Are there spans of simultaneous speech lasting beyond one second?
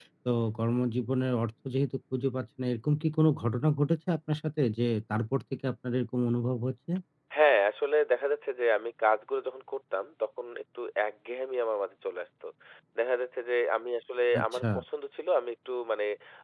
No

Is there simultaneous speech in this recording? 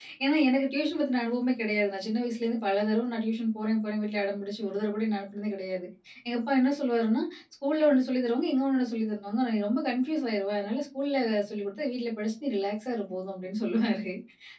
No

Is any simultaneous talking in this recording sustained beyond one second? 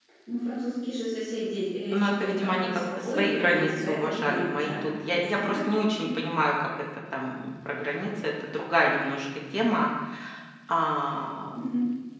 Yes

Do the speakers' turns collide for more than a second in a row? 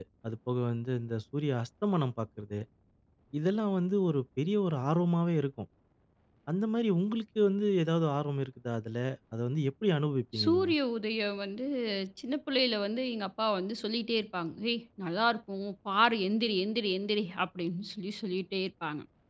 No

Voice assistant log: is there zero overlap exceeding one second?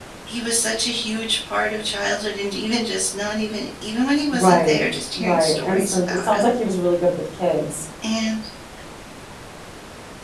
No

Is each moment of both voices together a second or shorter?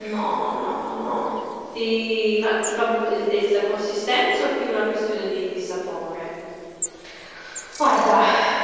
Yes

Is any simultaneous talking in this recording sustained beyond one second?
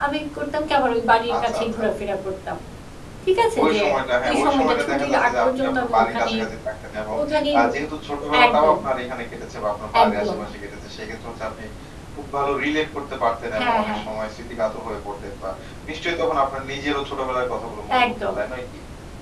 Yes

